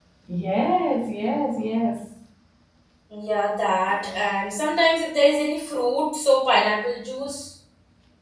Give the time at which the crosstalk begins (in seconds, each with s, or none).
none